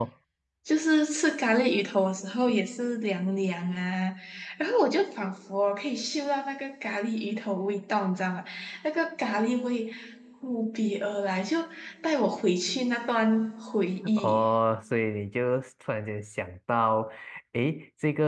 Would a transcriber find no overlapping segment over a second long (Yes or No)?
Yes